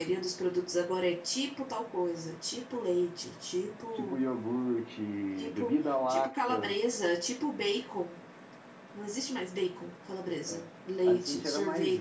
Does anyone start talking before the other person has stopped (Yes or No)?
Yes